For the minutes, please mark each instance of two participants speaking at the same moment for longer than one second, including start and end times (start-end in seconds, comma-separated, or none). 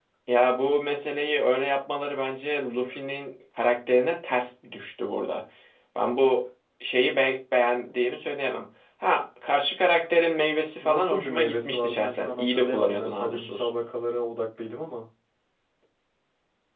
10.8-13.7